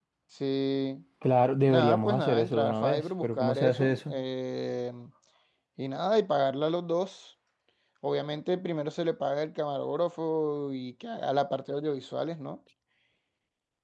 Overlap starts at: 1.7 s

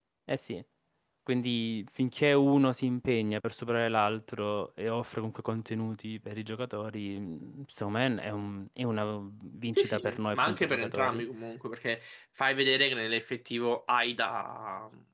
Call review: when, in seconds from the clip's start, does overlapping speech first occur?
9.8 s

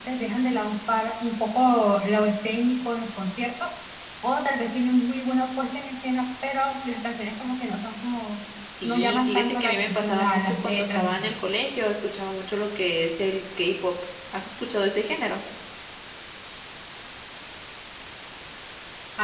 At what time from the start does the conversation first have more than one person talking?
8.8 s

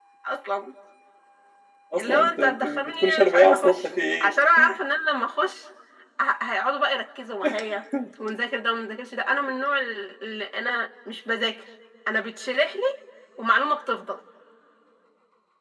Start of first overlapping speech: 2.0 s

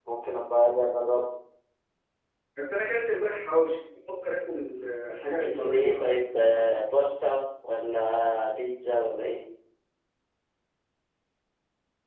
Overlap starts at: 5.3 s

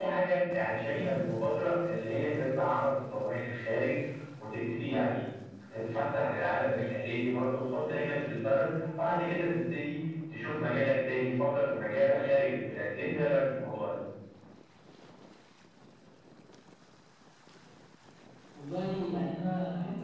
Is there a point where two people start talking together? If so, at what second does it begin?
none

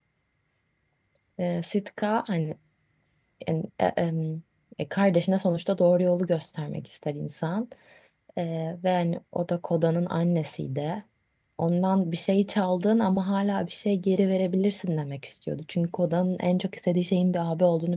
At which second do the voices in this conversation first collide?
none

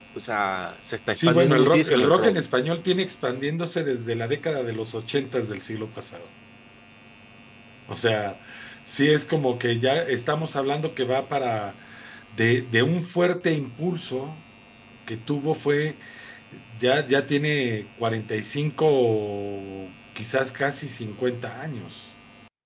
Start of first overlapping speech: 1.1 s

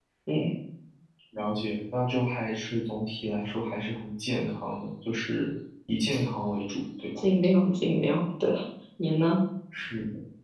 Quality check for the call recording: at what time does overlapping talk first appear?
none

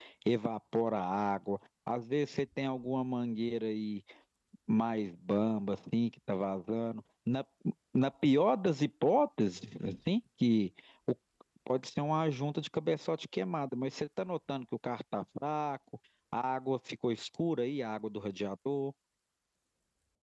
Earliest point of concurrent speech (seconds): none

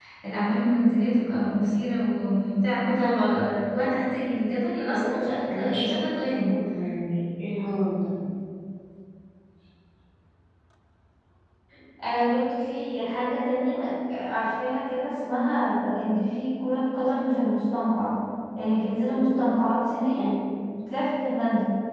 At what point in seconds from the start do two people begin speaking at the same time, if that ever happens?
4.9 s

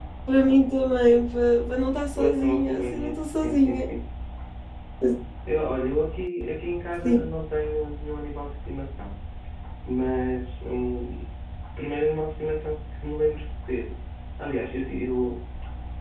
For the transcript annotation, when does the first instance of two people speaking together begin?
2.2 s

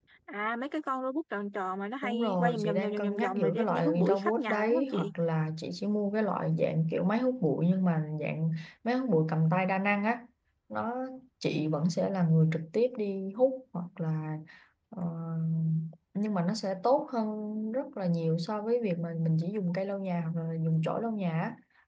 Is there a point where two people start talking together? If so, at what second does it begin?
2.0 s

